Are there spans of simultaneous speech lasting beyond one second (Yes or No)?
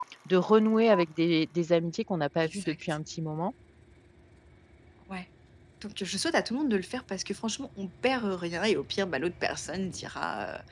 No